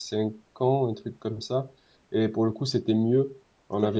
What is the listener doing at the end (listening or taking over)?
listening